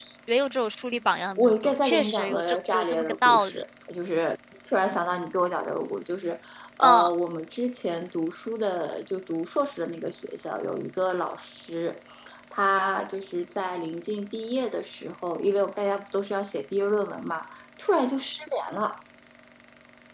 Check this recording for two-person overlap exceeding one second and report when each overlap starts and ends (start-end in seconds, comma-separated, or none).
1.4-3.6